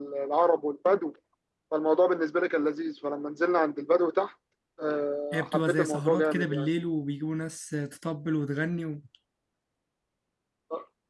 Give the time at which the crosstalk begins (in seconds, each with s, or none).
5.3 s